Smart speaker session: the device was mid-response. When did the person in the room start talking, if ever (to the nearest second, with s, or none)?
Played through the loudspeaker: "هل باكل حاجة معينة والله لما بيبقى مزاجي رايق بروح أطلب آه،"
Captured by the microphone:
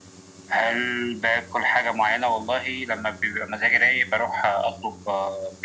none